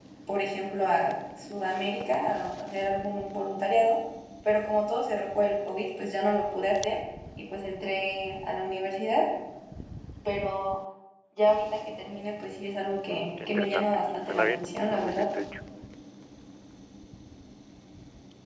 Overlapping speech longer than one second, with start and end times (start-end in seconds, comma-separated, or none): 13.1-15.3